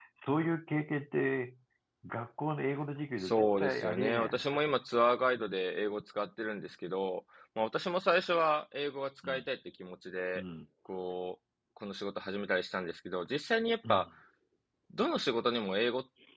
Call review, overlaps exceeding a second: present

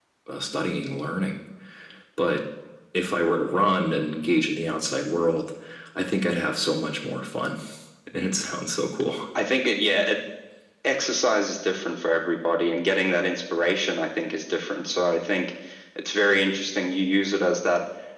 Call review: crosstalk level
none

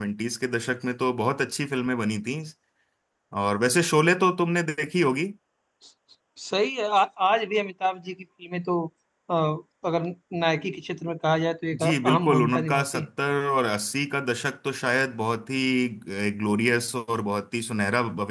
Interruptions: present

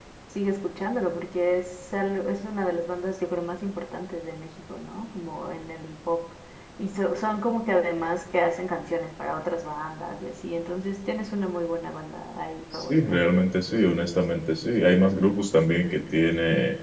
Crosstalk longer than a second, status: none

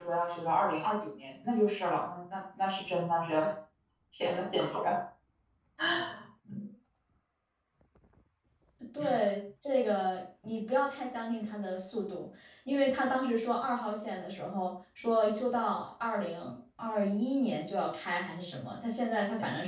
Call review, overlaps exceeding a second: none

